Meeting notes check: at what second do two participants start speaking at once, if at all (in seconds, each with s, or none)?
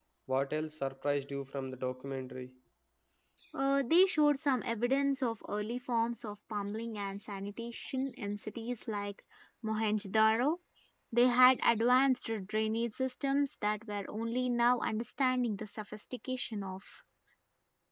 none